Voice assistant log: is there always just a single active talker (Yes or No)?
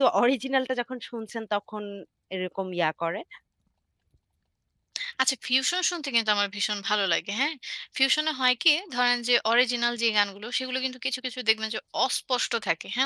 Yes